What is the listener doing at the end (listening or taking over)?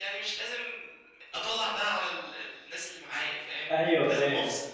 listening